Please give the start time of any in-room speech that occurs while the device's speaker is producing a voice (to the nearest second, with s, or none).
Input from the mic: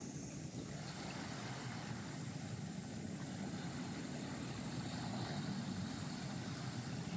none